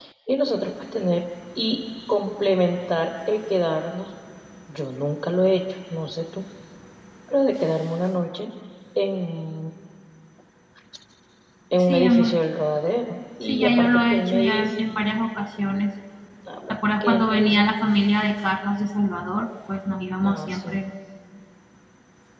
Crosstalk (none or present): present